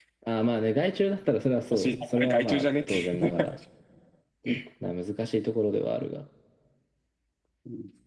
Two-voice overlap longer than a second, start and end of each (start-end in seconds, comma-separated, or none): 1.7-3.4